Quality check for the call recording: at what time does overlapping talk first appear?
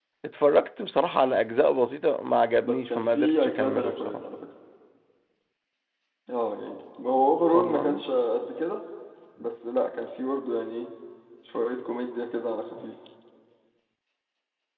2.6 s

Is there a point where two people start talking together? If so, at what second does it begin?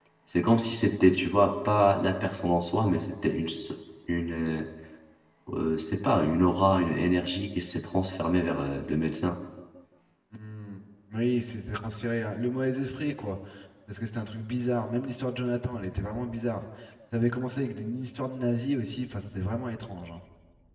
none

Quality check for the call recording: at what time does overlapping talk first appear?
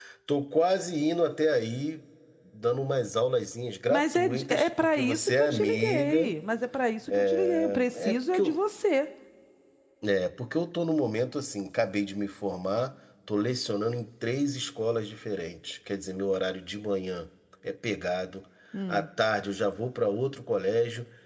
3.9 s

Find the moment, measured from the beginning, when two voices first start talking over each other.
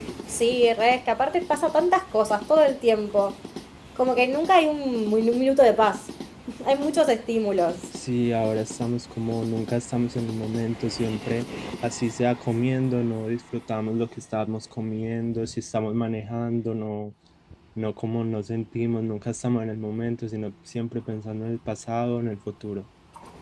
none

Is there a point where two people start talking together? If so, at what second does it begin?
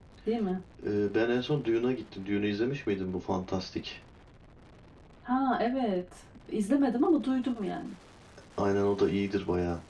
none

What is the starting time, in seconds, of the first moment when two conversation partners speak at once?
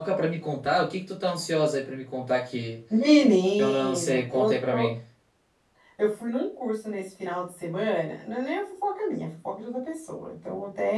3.6 s

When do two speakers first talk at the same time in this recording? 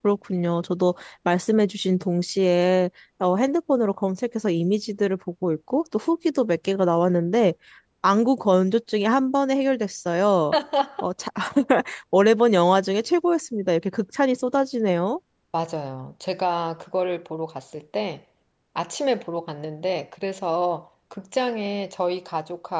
none

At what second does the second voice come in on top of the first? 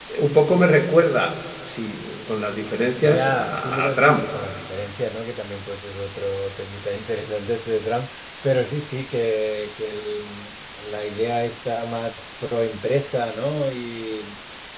3.0 s

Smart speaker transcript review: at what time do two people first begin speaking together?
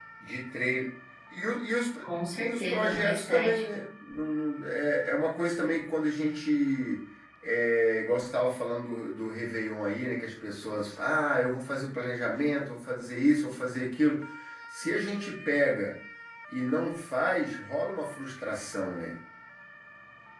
2.4 s

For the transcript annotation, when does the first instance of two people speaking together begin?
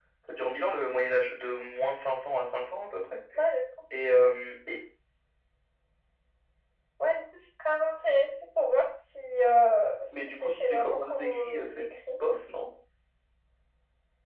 10.1 s

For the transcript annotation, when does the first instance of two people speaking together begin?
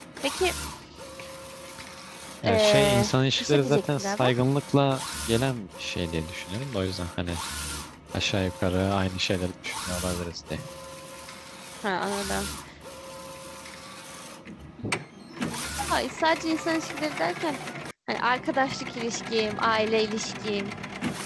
2.5 s

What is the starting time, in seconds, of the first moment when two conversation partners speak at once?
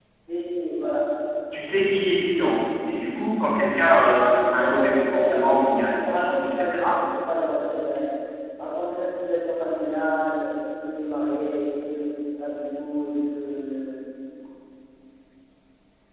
3.5 s

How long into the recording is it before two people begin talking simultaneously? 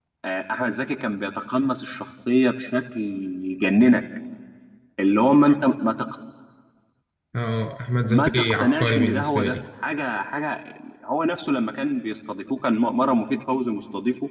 8.0 s

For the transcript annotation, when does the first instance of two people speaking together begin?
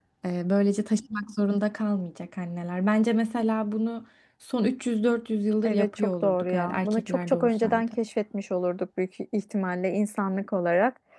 5.6 s

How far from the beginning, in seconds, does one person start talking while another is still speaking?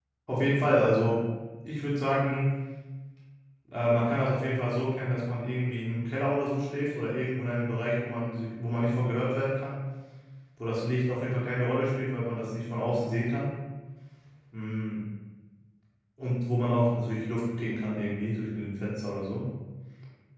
none

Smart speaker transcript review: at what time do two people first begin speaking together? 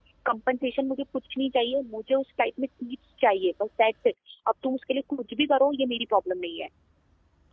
none

